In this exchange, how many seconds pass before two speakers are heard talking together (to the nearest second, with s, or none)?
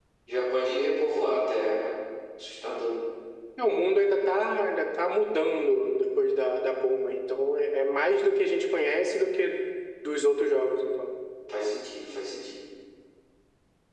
none